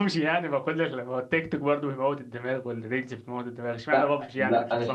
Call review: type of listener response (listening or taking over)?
taking over